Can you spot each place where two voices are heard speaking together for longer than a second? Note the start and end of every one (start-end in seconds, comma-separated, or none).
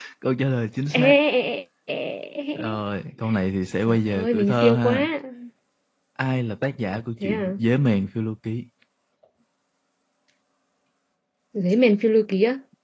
3.9-5.1